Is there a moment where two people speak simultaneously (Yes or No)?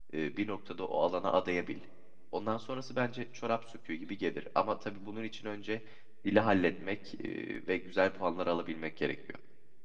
No